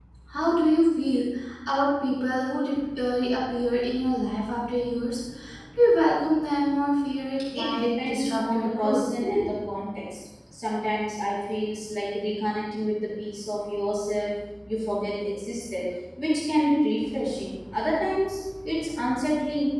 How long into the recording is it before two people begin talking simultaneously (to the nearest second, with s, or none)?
8 s